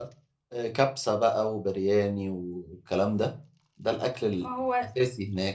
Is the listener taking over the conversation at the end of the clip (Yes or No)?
No